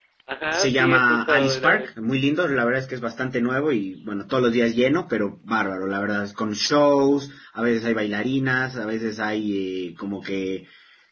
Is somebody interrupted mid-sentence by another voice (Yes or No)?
Yes